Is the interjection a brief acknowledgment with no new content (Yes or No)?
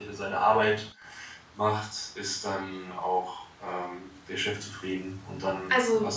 No